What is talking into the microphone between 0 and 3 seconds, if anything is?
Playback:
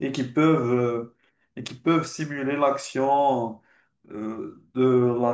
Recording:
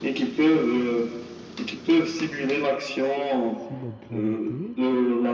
echo only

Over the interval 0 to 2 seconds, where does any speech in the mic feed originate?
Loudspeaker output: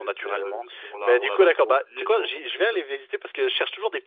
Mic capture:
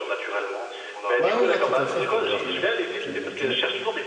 both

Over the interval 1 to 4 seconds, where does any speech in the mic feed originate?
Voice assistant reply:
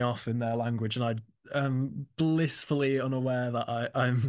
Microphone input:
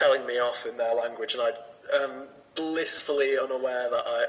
echo only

